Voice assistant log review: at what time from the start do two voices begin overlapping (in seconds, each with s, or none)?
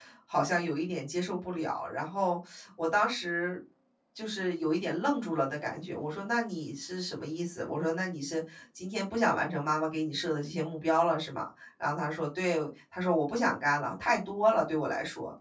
none